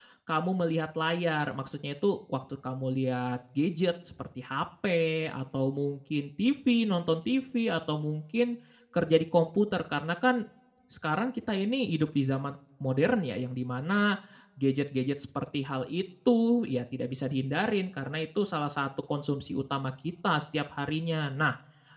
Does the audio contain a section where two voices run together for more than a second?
No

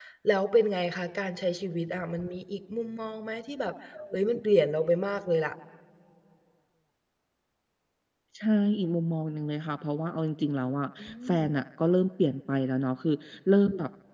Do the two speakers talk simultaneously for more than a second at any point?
No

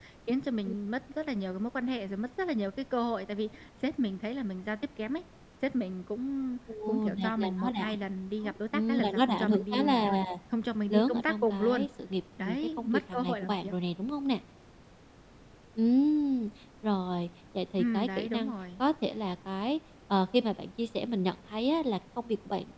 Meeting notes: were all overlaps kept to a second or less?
No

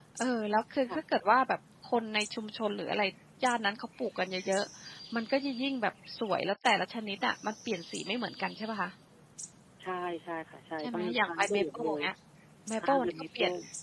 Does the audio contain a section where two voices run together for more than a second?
Yes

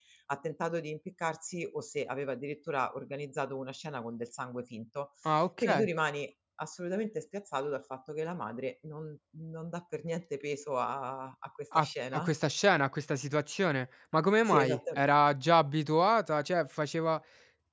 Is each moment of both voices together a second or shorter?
Yes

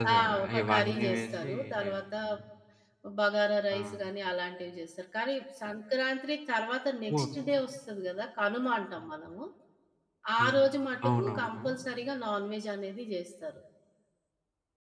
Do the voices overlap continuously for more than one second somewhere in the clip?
Yes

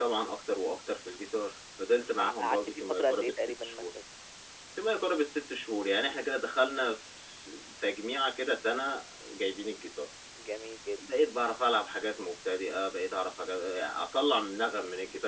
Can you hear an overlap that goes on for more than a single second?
Yes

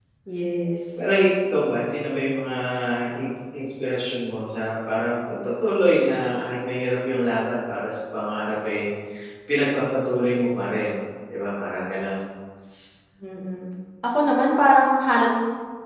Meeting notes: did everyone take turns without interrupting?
Yes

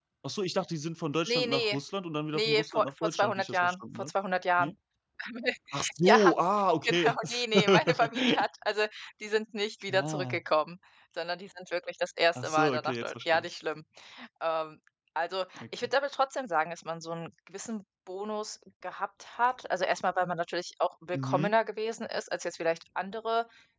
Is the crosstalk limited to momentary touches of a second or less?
No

